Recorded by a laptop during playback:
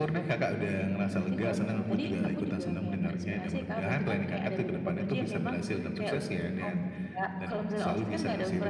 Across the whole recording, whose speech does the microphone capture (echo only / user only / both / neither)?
echo only